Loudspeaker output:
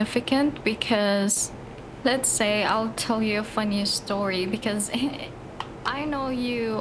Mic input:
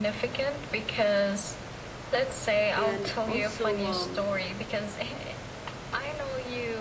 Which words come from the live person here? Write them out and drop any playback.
and also um,

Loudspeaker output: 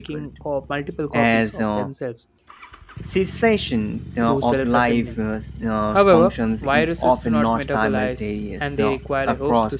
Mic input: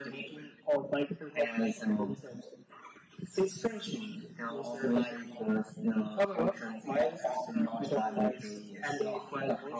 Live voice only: none

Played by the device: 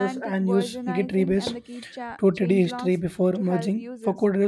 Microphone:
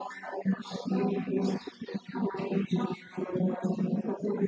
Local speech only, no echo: none

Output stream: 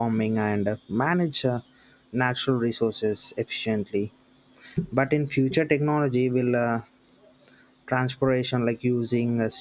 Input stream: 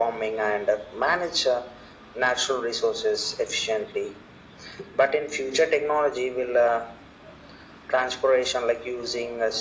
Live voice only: none

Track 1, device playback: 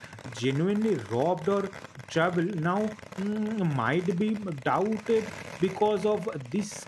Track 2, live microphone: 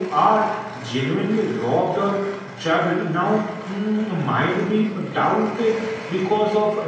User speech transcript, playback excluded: none

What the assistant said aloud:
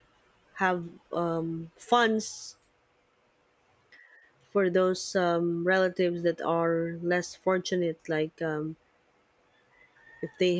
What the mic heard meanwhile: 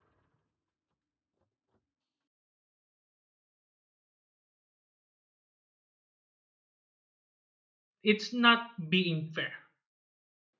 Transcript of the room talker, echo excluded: it's not being fair

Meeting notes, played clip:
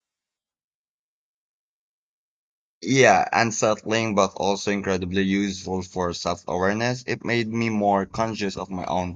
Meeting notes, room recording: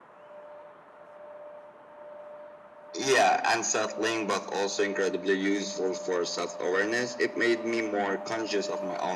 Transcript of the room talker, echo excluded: none

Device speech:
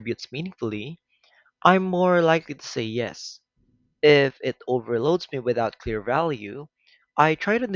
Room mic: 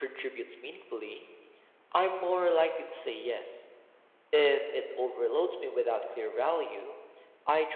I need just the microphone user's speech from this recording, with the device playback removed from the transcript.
none

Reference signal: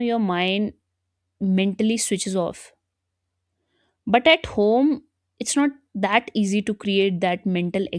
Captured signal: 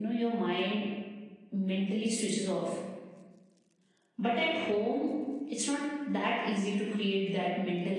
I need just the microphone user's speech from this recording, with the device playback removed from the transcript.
none

